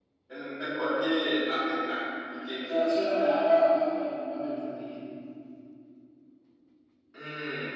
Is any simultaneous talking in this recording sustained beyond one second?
No

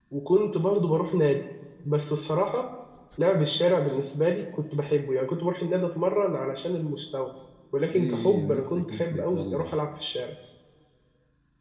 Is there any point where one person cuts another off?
Yes, from 7.9 s

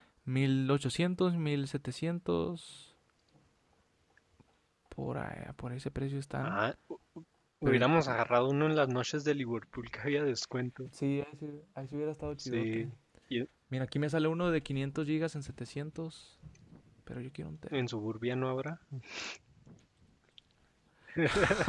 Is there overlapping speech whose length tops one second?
No

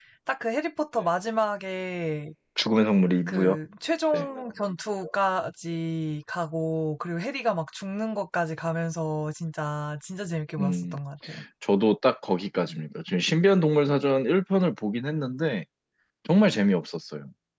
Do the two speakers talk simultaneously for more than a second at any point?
No

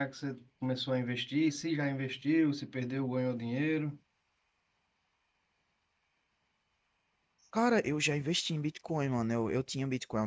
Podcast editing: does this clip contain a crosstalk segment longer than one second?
No

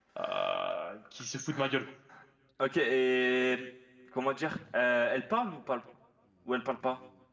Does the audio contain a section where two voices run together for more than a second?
No

